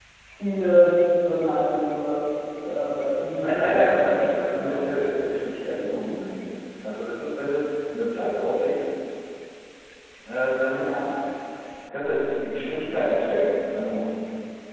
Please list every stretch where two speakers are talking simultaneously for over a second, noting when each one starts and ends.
3.4-4.8

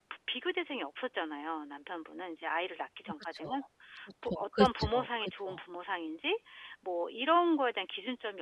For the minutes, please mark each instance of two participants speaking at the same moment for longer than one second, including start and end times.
4.3-5.6

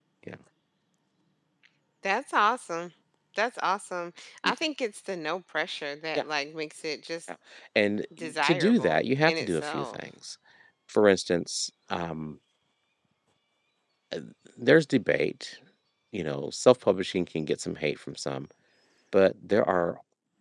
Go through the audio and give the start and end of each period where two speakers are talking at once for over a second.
8.4-10.0

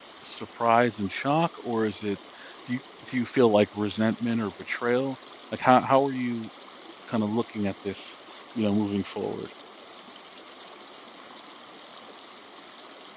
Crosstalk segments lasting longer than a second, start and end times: none

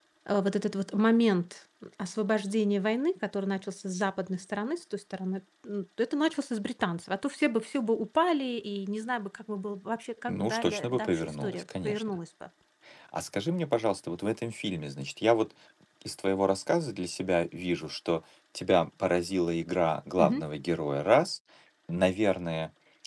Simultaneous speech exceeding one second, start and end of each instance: 10.3-12.0

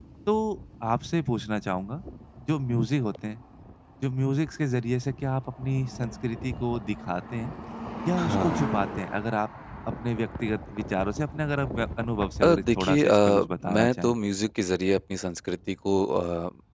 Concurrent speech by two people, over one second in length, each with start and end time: 12.4-14.1

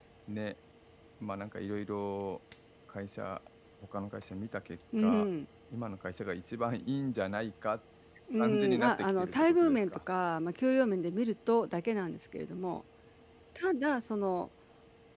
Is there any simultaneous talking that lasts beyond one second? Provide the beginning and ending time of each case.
8.4-10.0

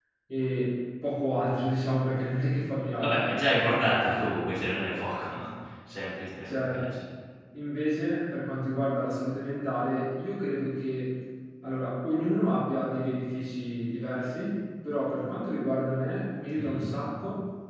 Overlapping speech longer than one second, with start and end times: none

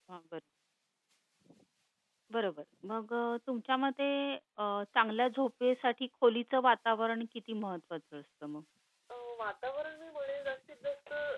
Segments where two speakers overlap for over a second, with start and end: none

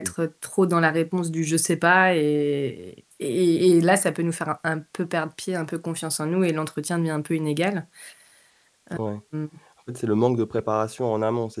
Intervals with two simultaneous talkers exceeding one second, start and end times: none

